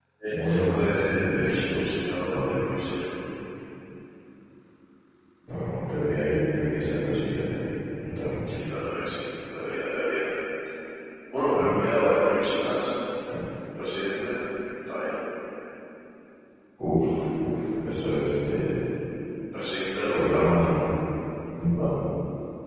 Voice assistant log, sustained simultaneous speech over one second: present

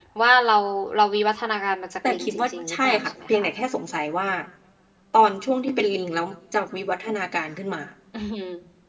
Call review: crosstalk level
present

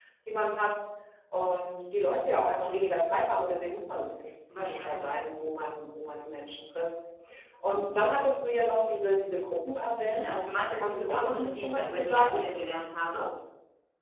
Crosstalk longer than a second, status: present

